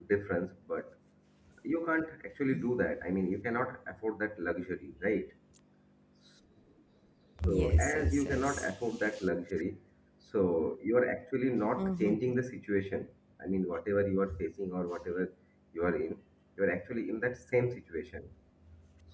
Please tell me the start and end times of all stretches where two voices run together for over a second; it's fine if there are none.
7.5-8.7

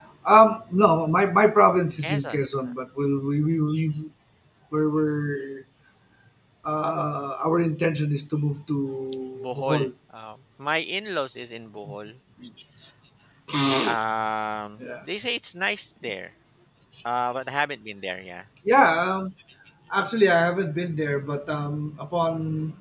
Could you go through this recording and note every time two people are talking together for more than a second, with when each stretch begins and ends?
none

